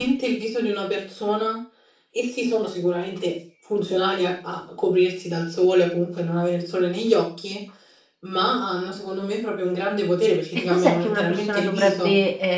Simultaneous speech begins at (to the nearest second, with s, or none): 11 s